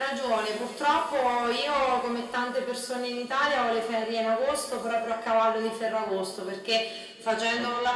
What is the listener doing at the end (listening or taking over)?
listening